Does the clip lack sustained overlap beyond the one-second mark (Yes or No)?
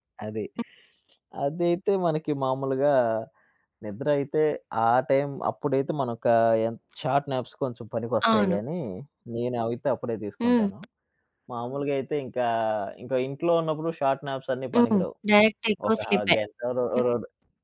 Yes